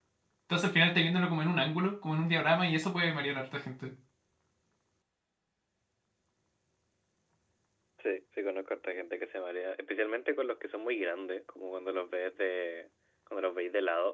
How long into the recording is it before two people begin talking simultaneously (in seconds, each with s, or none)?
none